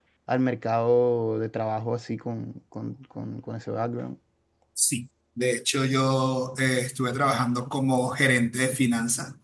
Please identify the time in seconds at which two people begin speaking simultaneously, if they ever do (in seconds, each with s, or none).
none